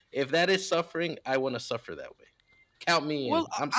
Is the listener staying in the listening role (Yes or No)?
No